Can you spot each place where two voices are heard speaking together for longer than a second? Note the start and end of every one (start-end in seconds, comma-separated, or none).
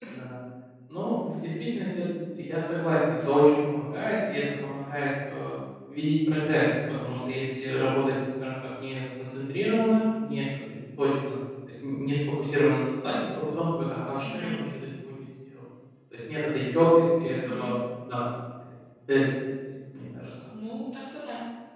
none